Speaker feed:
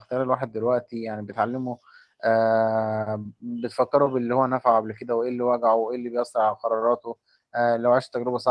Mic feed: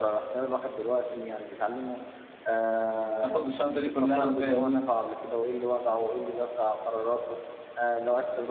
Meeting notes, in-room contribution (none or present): present